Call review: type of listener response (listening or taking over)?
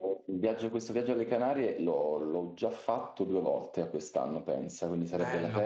taking over